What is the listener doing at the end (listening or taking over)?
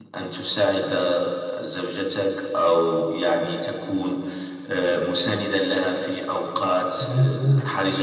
listening